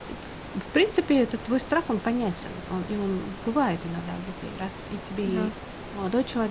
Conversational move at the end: listening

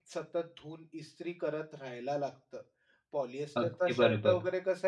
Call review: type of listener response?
listening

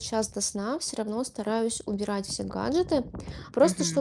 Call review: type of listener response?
listening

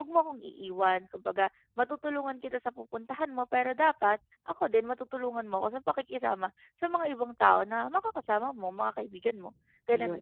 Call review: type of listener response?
taking over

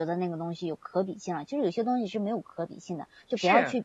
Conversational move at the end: taking over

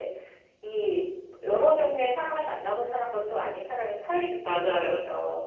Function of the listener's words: taking over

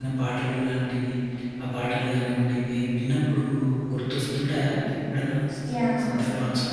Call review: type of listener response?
taking over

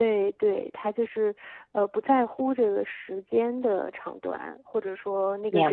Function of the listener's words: listening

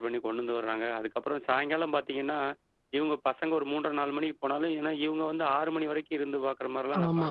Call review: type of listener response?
taking over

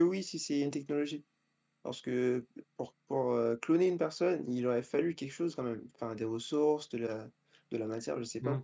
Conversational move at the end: taking over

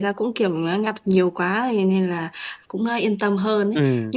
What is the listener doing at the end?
listening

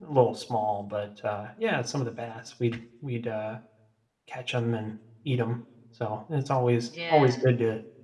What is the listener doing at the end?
listening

